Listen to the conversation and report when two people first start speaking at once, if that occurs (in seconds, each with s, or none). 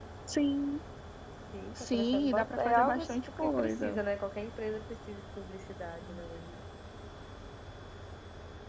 1.9 s